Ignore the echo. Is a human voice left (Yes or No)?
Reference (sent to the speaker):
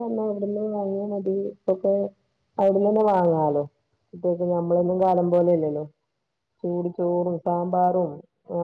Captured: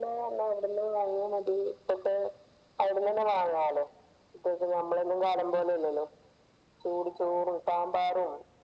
No